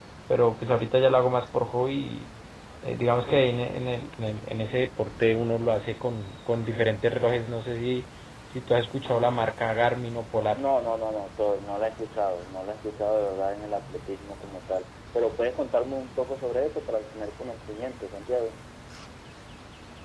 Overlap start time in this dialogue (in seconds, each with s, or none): none